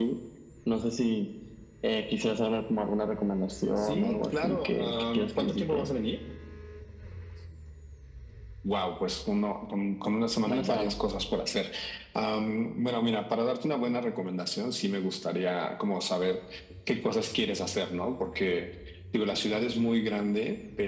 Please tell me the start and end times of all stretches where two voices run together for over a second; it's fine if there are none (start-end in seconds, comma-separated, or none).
3.8-5.9